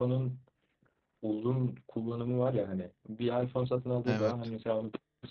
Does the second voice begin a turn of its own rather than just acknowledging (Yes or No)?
No